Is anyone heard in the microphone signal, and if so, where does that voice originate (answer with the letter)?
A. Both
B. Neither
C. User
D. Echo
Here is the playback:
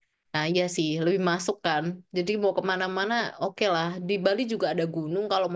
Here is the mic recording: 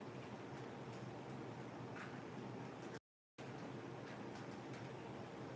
B